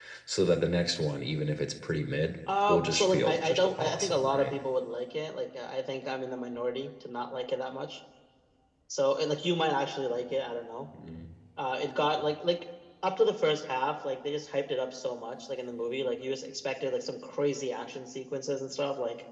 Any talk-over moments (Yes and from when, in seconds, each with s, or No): Yes, from 2.5 s